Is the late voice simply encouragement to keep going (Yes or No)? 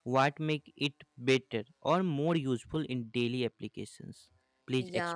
No